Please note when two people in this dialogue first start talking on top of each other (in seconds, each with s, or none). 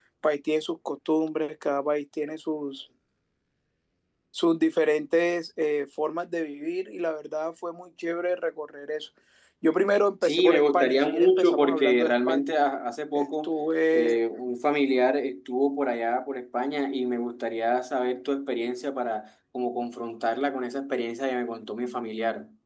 10.2 s